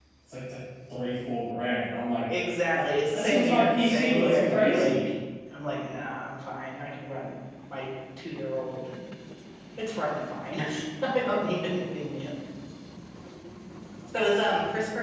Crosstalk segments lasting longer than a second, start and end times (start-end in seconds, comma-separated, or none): 2.7-5.1